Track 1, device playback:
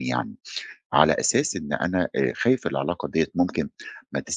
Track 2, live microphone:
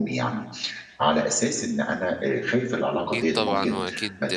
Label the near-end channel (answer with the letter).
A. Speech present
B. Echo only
A